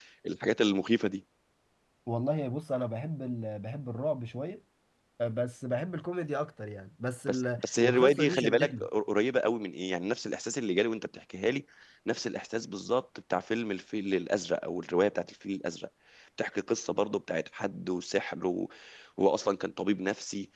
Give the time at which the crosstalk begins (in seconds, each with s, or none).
7.3 s